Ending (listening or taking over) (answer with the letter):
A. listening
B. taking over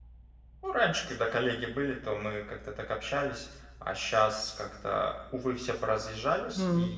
A